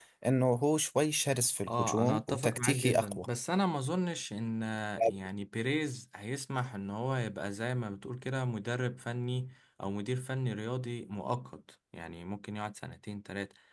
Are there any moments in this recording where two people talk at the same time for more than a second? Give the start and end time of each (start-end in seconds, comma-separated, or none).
1.7-3.2